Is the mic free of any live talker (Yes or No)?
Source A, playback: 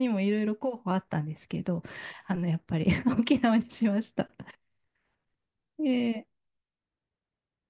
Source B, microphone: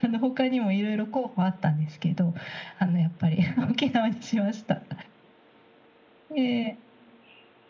Yes